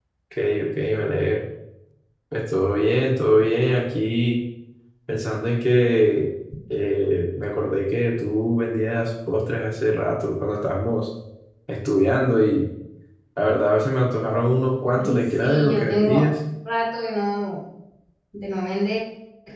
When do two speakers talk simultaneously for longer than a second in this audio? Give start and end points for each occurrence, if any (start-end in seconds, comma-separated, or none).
15.0-16.2